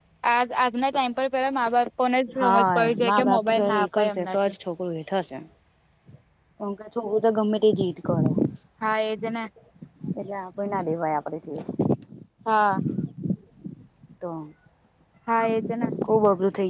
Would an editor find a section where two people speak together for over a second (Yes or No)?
Yes